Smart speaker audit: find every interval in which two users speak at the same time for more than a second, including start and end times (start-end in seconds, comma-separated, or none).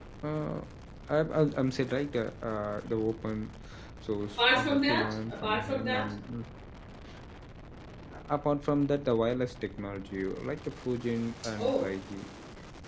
4.4-6.1